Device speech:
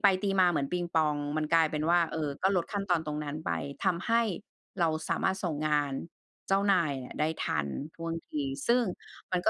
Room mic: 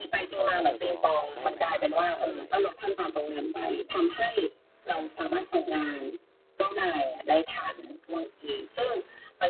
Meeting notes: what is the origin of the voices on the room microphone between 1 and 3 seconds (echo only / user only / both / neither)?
both